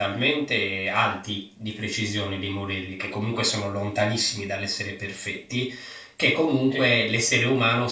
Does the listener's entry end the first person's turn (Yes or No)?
No